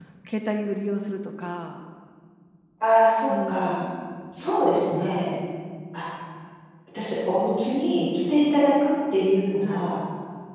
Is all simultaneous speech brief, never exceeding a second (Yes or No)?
Yes